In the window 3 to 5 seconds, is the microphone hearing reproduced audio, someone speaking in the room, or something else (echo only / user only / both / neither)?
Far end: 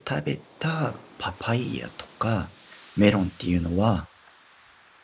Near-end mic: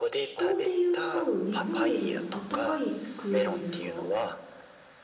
both